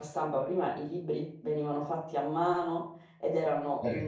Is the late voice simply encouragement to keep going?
Yes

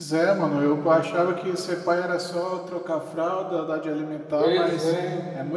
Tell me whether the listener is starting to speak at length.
No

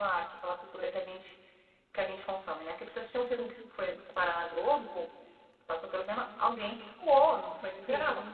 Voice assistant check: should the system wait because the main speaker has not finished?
Yes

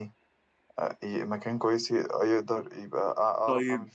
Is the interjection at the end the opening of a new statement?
Yes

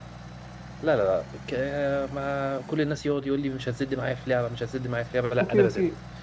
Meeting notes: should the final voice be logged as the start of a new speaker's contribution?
Yes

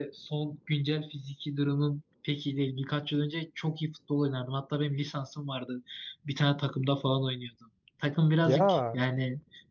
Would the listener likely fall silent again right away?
Yes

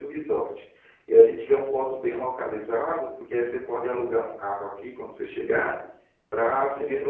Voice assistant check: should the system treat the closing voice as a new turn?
No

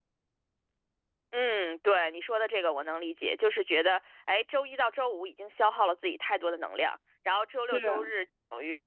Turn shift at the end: No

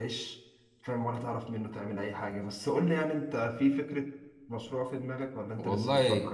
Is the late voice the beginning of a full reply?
Yes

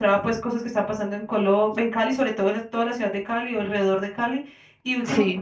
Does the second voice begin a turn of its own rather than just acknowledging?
No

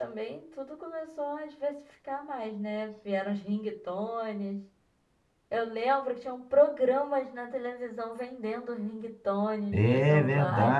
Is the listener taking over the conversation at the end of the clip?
Yes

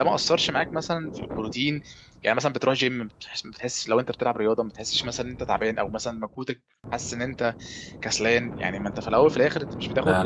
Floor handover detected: No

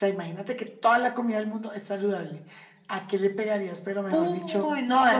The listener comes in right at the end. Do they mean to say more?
Yes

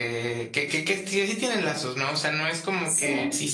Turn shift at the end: No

